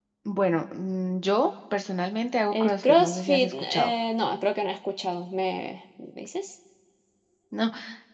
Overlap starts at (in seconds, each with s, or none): 2.5 s